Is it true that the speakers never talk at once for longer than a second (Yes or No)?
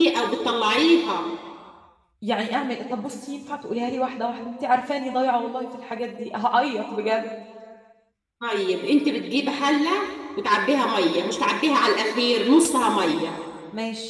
Yes